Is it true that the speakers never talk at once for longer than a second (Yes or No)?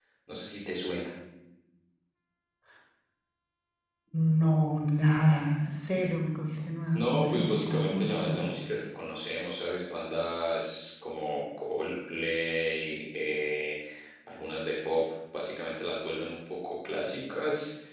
No